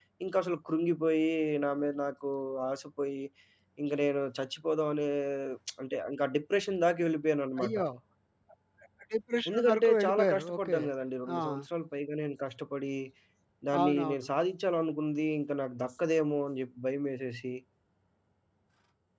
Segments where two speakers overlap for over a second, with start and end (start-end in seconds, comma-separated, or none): 9.5-10.8